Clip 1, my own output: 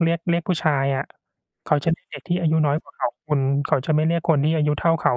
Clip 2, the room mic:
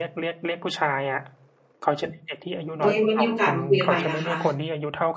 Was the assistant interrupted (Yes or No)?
Yes